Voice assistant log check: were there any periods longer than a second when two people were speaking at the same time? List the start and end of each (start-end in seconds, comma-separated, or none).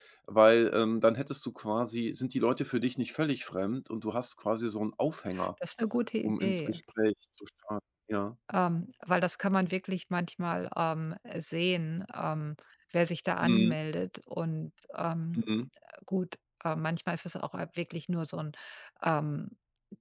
none